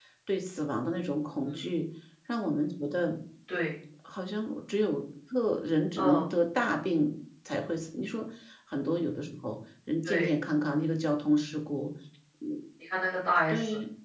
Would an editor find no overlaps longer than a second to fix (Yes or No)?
Yes